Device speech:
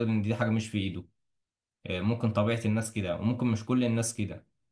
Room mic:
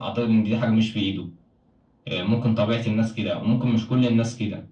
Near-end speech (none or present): none